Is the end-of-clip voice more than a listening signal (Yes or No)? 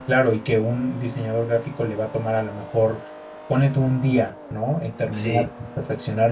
No